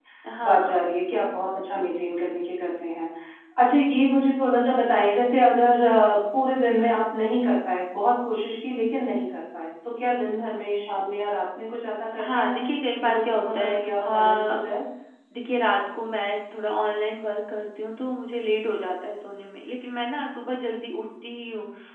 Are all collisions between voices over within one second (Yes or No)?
No